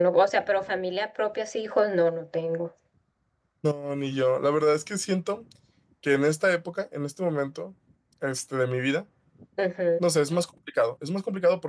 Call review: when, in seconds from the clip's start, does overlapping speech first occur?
none

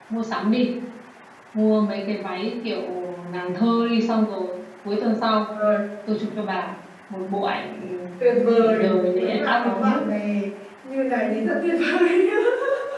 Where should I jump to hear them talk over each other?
8.6 s

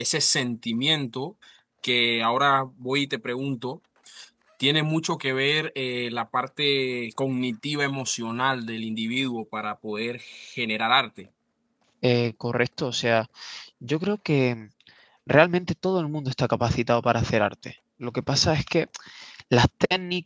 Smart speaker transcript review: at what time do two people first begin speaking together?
none

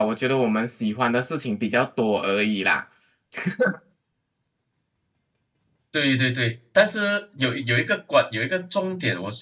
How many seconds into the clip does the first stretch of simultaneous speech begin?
none

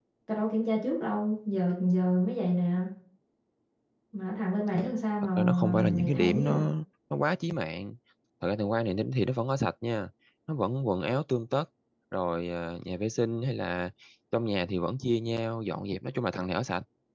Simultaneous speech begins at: 5.4 s

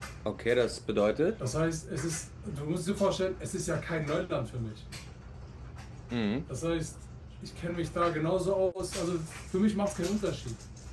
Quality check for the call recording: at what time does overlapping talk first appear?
none

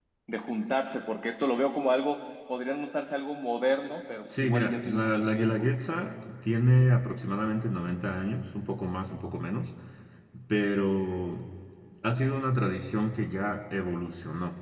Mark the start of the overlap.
4.3 s

